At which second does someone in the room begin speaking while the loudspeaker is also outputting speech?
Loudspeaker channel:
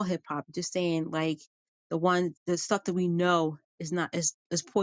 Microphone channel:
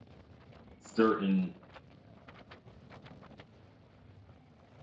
0.8 s

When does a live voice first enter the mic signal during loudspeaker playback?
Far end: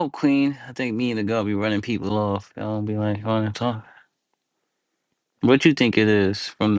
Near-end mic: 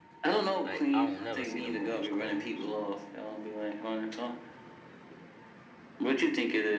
0.6 s

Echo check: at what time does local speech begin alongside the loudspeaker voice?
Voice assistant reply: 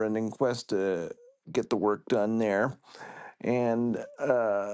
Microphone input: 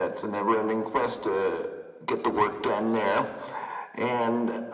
none

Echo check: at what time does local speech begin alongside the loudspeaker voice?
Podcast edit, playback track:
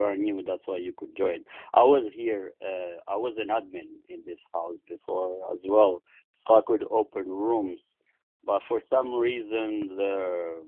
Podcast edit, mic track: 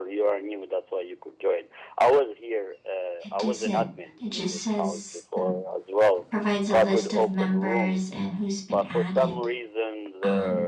3.2 s

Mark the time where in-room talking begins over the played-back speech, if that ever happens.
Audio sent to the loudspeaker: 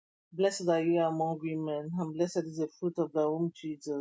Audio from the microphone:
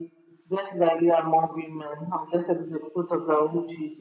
none

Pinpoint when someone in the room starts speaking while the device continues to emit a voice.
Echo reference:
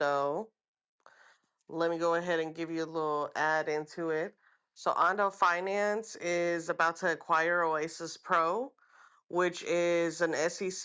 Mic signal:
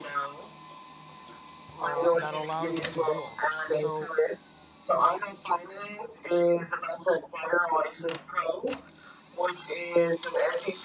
1.8 s

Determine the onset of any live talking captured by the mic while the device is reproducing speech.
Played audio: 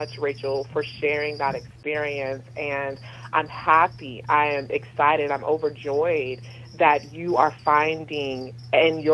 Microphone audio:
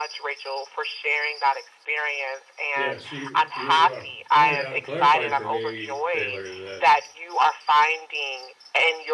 2.7 s

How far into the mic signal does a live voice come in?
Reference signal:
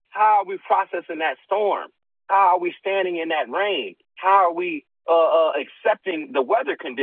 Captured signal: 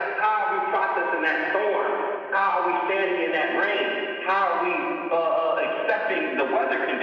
none

